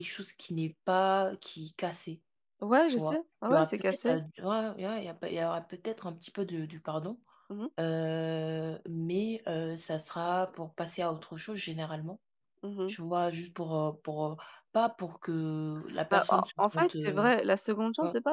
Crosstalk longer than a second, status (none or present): present